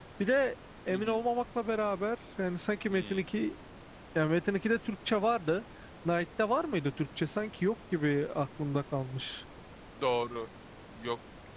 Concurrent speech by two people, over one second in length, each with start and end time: none

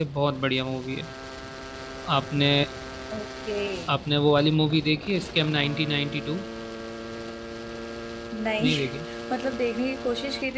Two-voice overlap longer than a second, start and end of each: none

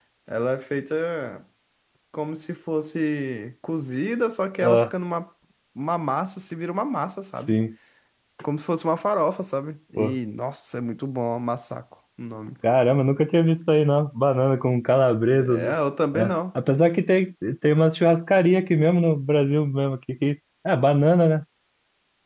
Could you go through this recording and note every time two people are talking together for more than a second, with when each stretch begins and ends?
none

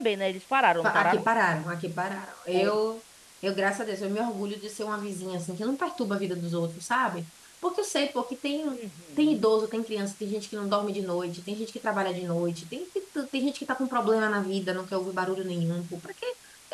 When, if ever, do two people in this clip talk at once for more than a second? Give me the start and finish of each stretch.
none

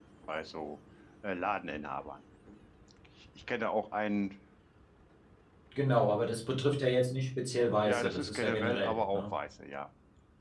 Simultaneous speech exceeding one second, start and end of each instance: 7.8-9.3

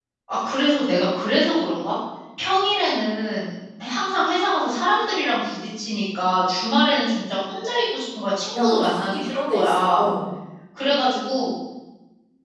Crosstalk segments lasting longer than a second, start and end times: 8.5-10.1

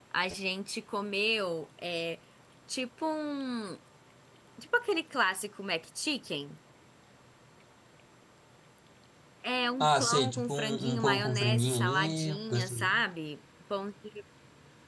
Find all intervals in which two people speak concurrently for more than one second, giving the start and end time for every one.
9.8-12.9

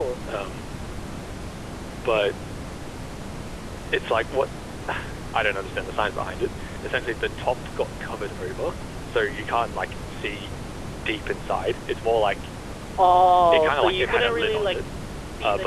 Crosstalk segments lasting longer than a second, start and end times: 13.5-14.8

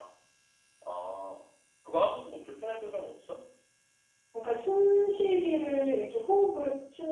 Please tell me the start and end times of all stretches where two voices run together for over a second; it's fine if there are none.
none

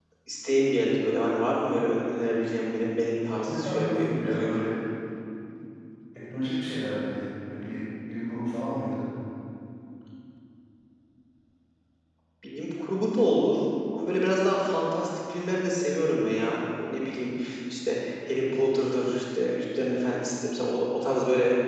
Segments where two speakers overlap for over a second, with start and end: 3.5-4.7

